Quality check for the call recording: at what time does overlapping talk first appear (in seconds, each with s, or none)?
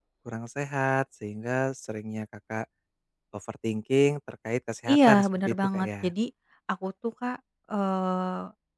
4.9 s